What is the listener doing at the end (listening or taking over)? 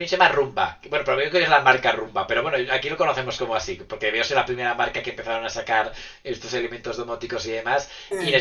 listening